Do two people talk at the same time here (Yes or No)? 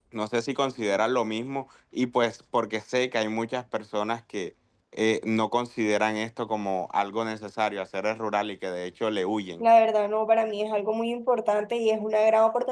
No